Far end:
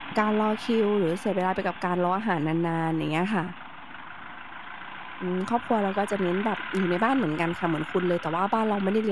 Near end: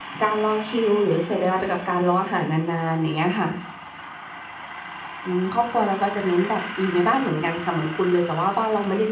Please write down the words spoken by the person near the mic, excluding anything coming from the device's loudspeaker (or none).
none